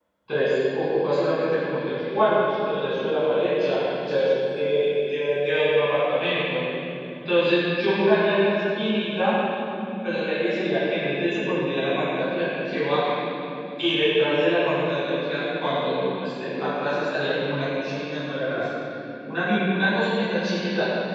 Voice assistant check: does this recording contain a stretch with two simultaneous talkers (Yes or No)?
No